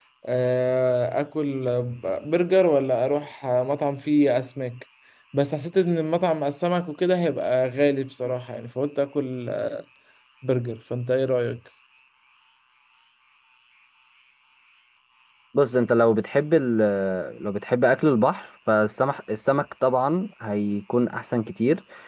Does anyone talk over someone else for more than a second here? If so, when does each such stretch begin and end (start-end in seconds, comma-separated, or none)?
none